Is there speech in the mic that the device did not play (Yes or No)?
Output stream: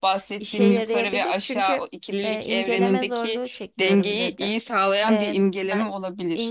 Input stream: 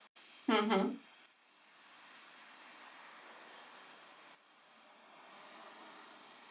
Yes